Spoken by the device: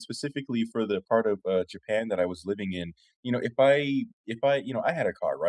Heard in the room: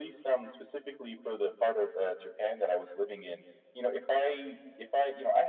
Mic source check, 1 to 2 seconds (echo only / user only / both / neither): echo only